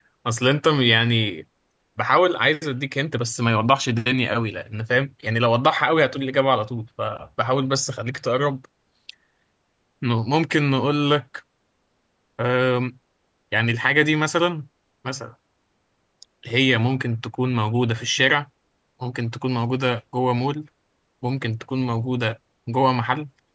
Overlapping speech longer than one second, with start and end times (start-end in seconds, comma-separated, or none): none